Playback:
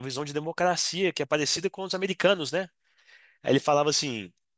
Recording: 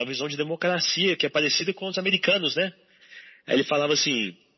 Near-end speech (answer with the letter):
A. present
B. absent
B